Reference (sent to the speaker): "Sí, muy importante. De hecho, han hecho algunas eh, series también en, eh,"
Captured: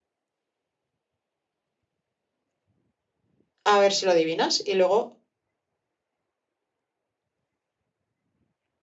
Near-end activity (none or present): present